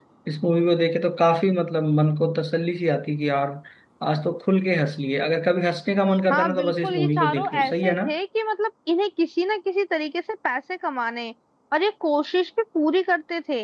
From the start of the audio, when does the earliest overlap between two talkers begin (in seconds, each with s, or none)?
6.3 s